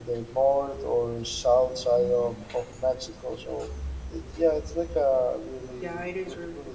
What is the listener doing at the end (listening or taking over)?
taking over